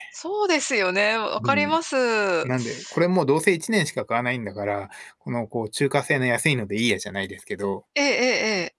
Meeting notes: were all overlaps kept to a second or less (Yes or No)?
Yes